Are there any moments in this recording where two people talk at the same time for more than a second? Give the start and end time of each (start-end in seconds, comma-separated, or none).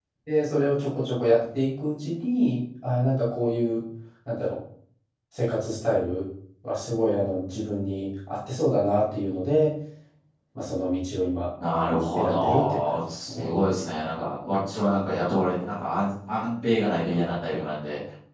12.1-13.5